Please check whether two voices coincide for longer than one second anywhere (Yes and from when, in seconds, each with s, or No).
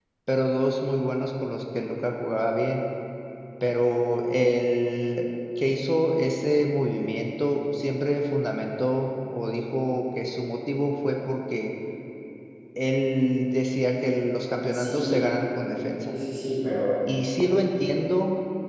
No